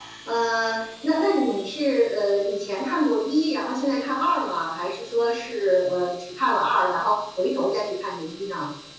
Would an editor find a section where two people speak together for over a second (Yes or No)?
No